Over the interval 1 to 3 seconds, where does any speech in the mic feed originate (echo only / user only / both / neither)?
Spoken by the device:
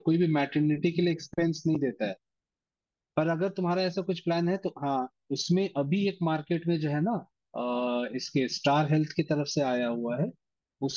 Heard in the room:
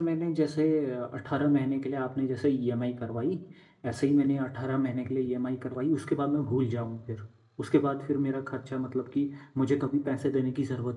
user only